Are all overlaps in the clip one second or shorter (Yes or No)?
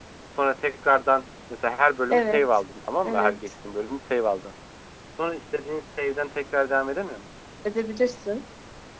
Yes